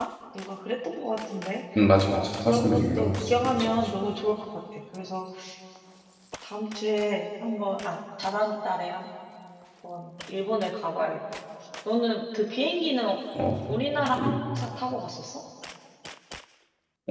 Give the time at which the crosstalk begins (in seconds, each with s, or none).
2.0 s